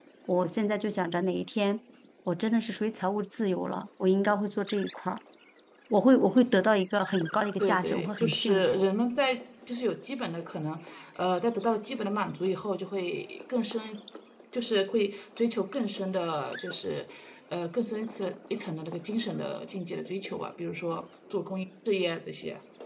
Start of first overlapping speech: 8 s

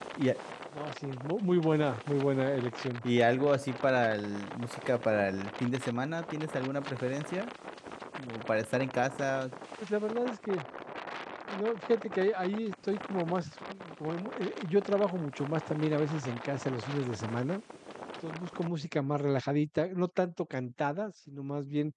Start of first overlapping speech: none

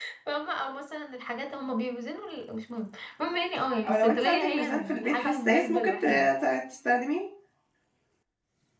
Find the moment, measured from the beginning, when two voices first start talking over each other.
4 s

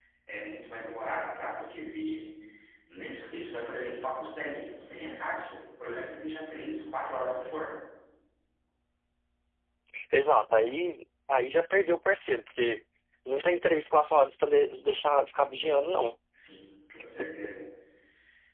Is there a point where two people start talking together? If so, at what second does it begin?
none

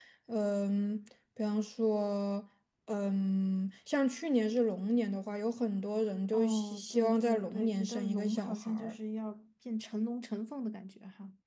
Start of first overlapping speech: 6 s

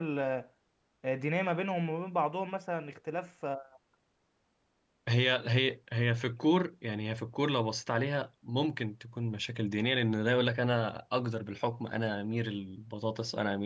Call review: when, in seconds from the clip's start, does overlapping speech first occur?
none

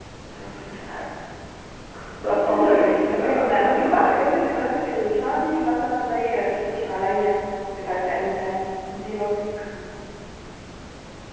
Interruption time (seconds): 2 s

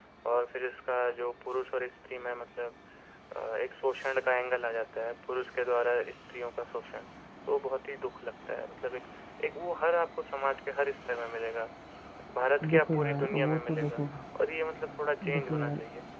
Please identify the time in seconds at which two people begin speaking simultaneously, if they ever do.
13 s

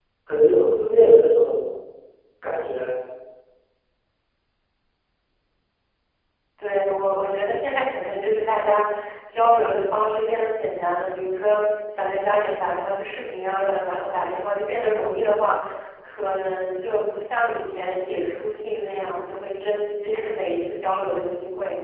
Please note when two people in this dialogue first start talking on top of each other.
none

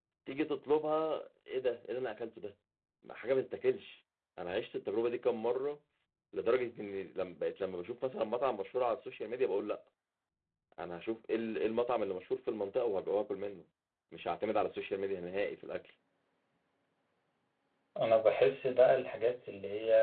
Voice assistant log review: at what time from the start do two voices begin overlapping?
none

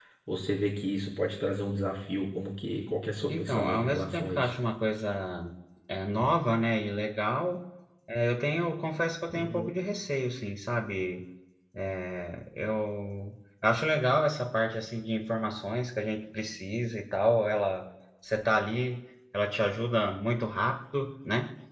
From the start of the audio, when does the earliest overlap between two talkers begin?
3 s

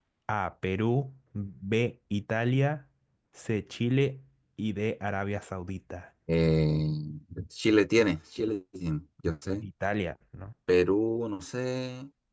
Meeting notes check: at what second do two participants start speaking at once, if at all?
none

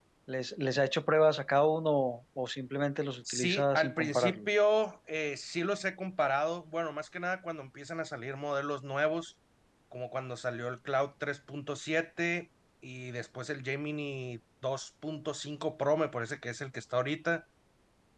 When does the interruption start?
3 s

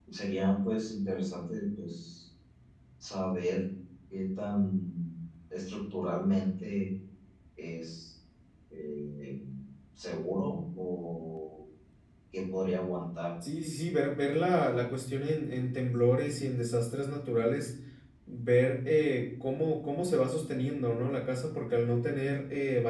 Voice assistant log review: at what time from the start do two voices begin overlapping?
none

